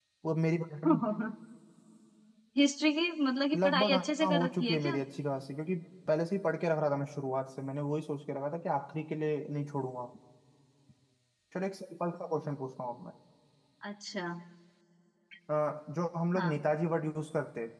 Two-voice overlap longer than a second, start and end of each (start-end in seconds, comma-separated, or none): 3.5-4.9